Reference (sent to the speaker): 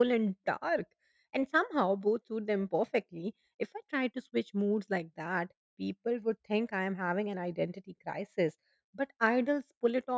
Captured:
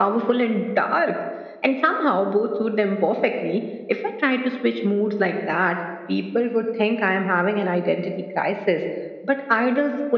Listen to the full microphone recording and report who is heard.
echo only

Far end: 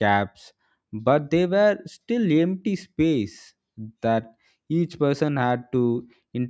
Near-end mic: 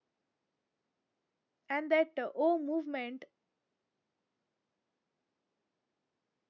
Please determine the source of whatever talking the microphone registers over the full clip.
user only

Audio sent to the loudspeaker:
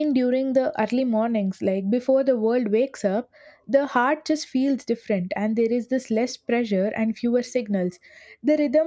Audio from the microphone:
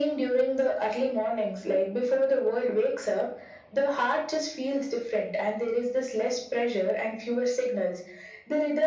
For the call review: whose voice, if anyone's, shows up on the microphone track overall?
echo only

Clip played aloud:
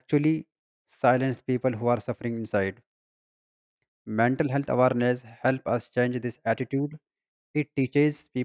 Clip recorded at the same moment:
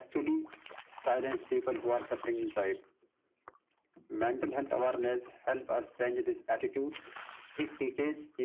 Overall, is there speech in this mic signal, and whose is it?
echo only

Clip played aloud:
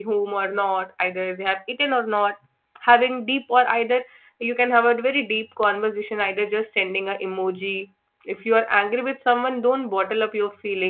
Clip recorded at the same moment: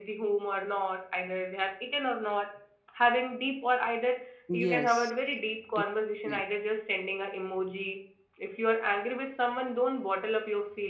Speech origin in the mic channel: both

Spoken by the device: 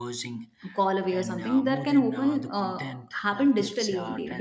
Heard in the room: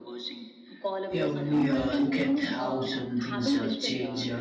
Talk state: both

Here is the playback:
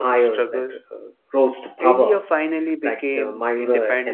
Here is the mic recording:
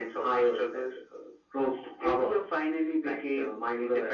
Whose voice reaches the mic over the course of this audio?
echo only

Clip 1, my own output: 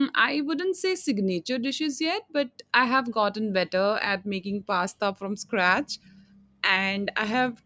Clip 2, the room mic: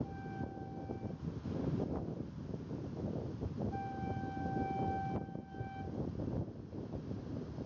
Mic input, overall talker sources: neither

